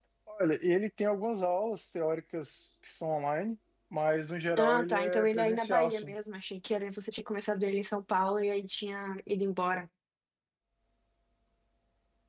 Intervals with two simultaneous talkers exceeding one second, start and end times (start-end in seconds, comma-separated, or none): 4.6-6.1